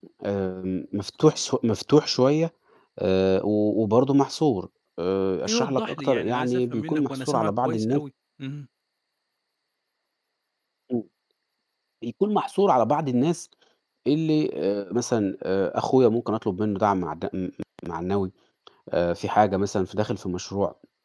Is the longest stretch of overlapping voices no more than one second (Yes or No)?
No